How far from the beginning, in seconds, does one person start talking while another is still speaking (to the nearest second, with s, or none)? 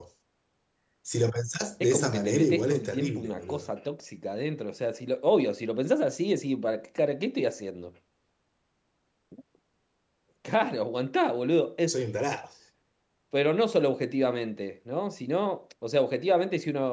2 s